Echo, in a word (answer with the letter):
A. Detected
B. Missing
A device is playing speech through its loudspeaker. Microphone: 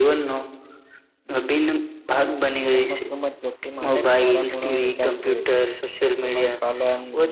A